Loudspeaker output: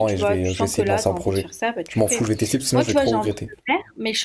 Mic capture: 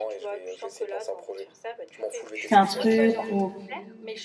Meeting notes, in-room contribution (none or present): present